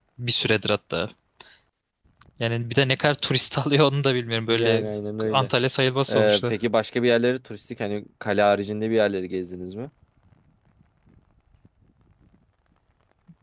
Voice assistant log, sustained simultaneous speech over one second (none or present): none